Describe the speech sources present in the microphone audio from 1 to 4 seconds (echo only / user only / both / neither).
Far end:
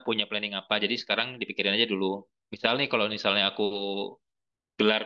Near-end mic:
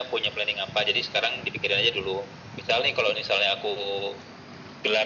echo only